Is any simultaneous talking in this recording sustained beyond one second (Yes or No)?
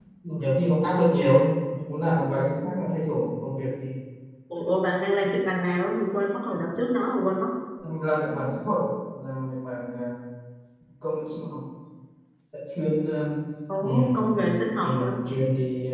No